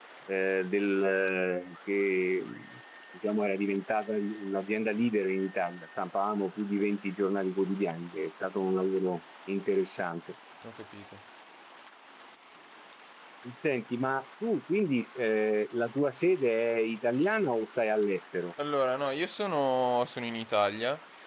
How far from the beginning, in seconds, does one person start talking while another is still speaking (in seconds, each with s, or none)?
none